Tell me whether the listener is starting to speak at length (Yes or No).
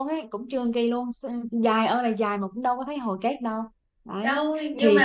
Yes